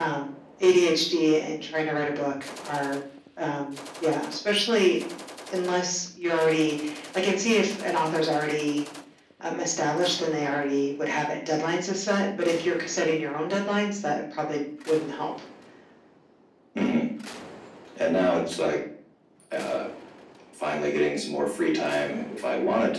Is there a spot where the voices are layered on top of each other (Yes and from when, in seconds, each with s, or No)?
No